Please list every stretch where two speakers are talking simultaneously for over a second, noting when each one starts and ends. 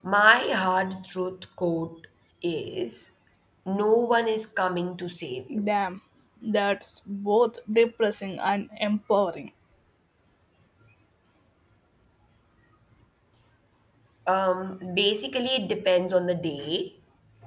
none

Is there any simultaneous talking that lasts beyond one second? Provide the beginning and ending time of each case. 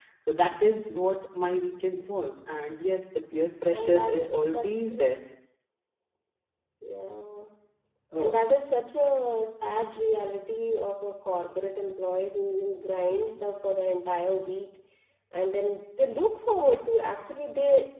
3.8-5.0

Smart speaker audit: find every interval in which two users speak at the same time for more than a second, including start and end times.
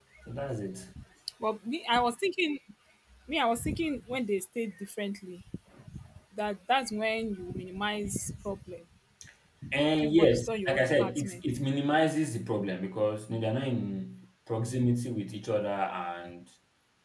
10.0-11.4

